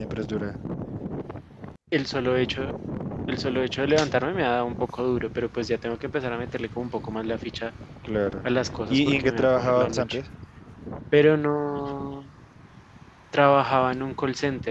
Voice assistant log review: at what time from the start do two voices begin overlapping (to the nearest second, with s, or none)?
9 s